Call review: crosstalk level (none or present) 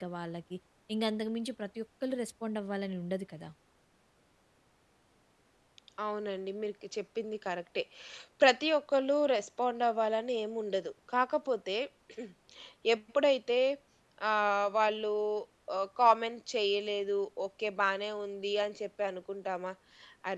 none